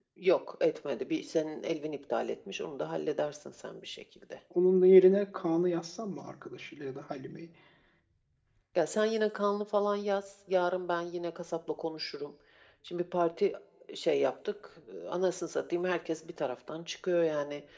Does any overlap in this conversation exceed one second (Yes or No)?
No